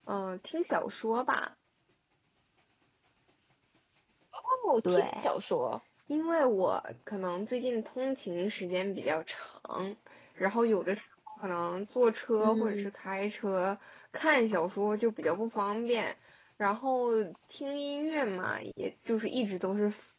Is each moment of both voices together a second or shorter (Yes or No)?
Yes